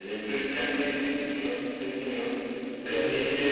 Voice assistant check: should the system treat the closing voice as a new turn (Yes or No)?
No